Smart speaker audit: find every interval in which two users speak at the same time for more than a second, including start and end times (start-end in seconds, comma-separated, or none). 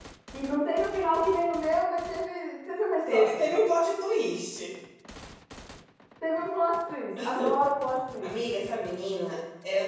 none